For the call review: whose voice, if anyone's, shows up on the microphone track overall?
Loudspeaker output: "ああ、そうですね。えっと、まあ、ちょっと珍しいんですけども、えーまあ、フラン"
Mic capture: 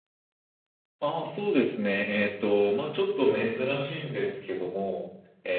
echo only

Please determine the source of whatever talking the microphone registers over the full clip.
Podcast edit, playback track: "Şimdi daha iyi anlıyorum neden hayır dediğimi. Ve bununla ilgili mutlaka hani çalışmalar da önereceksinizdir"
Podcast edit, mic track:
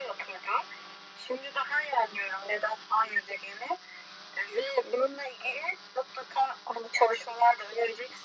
echo only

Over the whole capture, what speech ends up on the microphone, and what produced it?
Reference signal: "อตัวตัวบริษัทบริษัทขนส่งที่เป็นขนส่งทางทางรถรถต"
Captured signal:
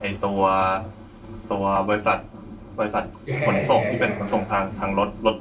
both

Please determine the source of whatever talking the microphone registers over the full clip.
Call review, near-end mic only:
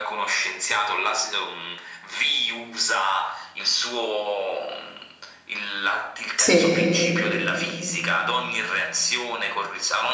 both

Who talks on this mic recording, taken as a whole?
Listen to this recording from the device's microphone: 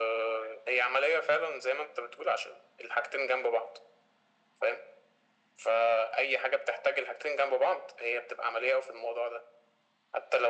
echo only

